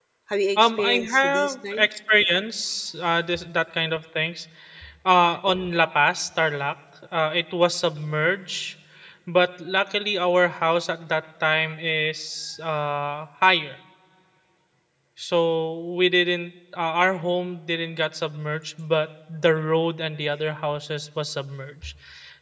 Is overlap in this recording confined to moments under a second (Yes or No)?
No